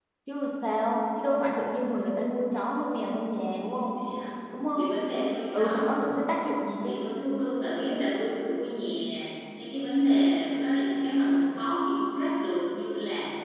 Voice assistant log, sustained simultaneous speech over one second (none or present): none